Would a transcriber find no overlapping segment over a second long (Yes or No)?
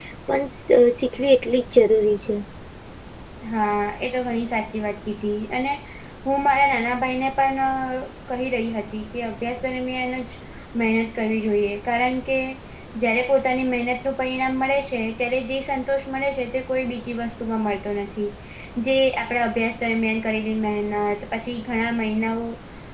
Yes